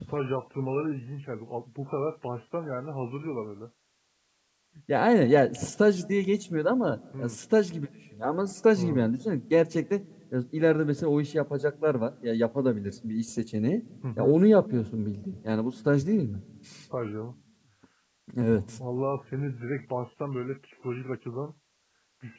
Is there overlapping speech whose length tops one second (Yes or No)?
No